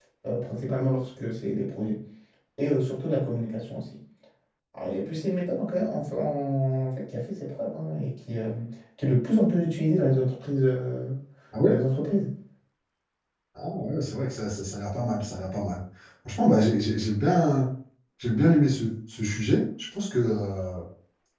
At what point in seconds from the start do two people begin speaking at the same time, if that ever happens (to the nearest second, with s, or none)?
none